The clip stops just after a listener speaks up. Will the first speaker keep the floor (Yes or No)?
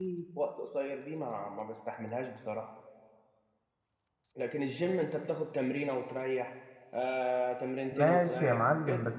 No